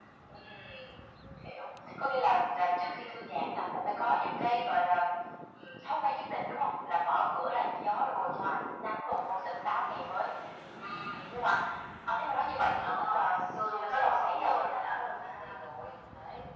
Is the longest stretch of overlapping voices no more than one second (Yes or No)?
No